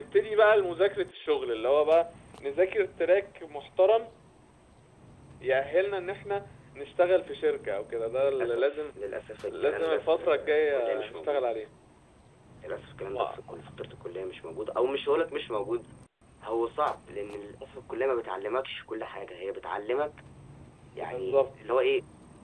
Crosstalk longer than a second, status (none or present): present